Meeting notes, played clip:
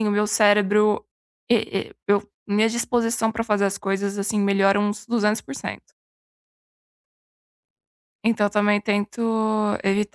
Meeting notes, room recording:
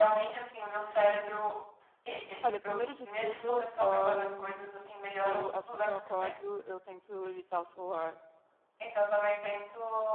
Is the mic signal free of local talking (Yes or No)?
No